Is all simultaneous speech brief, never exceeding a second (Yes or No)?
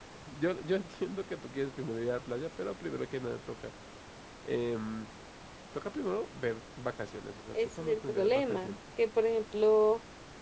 No